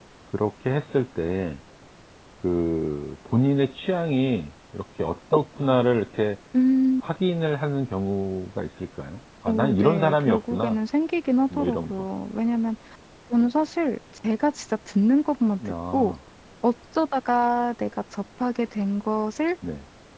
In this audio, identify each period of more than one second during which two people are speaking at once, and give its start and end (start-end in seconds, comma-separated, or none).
9.5-10.8